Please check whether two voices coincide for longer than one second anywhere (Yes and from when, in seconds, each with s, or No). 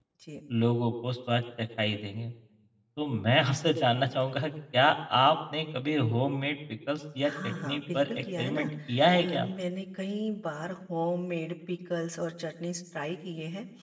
Yes, from 7.2 s